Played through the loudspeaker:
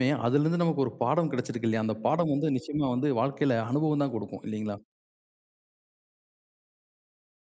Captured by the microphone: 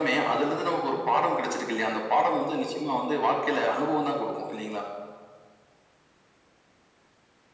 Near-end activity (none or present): none